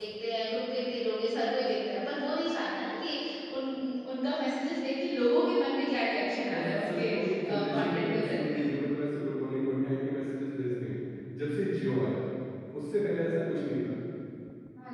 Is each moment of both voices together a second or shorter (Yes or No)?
No